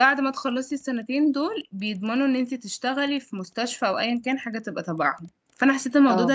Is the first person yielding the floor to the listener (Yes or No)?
No